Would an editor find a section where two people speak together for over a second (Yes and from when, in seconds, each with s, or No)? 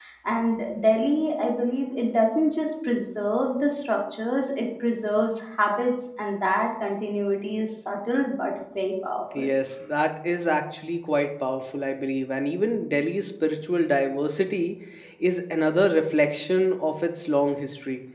No